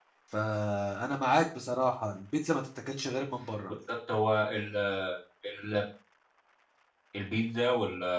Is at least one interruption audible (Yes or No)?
No